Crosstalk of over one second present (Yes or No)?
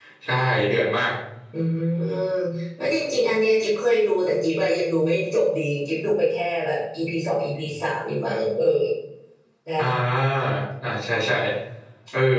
No